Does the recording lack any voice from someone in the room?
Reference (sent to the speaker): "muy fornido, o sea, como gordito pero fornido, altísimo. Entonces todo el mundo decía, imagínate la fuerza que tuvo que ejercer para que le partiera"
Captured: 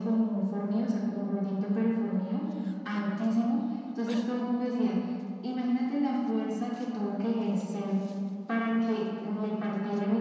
Yes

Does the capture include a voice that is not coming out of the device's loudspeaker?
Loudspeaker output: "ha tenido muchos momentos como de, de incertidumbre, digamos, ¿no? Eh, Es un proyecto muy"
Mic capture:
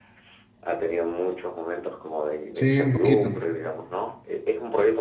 Yes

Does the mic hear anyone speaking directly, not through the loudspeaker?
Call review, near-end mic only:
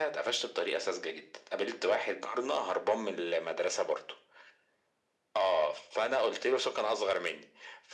No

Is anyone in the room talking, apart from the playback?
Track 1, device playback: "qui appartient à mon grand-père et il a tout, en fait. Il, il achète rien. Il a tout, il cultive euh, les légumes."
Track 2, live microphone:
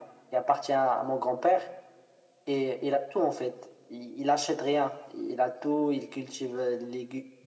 No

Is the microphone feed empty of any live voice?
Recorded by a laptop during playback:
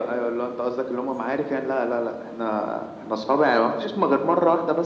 Yes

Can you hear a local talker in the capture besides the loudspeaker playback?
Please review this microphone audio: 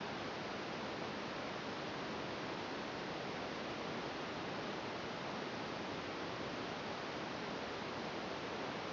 No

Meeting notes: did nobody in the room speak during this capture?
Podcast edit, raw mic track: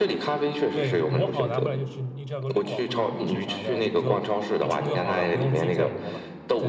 No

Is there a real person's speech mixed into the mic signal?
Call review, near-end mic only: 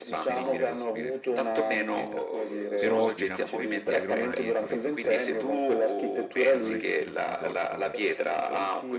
Yes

